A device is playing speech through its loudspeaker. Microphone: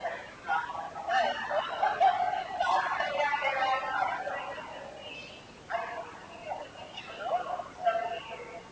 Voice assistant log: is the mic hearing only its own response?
Yes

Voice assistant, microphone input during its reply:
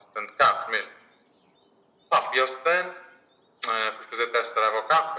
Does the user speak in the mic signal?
No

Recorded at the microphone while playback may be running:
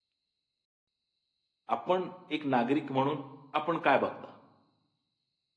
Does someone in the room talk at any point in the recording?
Yes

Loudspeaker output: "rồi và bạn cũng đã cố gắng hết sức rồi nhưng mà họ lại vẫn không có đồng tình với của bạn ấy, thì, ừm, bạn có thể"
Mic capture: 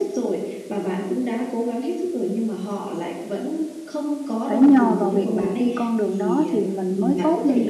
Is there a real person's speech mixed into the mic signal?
Yes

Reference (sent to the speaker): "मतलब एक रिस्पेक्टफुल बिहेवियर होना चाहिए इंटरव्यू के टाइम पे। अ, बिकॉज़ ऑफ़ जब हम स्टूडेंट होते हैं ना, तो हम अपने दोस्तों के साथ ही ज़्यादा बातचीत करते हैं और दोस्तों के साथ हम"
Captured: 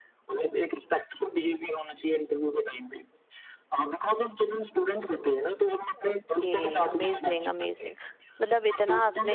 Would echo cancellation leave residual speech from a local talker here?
Yes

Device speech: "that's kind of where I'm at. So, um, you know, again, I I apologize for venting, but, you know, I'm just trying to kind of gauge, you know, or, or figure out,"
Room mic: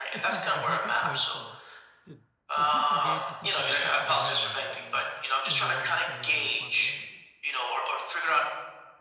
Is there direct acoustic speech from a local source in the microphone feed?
Yes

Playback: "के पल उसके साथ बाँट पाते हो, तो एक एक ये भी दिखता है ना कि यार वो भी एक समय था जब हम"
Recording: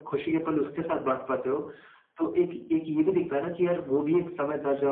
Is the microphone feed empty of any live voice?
Yes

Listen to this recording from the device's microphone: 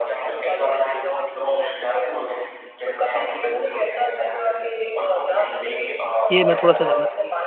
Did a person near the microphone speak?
Yes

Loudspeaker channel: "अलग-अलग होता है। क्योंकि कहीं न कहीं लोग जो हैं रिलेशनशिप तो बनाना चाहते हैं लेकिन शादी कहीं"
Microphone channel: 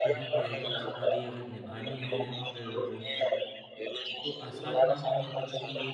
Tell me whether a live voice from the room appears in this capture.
Yes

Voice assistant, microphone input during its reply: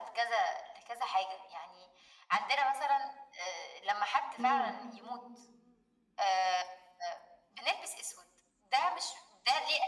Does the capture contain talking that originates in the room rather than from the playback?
Yes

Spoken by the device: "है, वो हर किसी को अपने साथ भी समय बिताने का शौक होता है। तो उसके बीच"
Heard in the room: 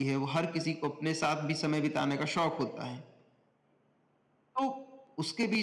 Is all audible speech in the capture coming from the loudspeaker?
Yes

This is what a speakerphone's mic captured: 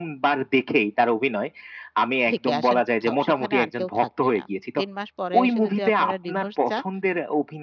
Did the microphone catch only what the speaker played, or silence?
No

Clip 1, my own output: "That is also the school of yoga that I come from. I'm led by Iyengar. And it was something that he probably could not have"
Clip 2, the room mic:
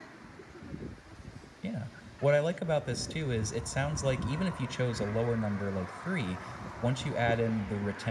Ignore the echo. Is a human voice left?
Yes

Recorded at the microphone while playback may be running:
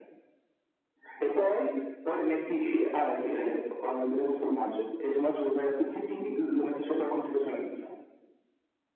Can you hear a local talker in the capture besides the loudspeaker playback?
No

